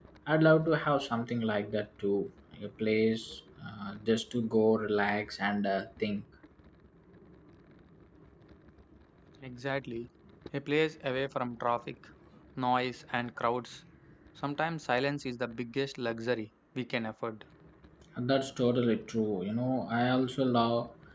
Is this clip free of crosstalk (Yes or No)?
Yes